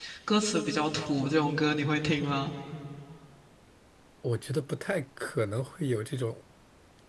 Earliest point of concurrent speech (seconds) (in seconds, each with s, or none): none